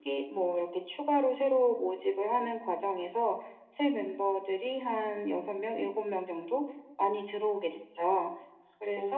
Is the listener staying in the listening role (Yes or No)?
No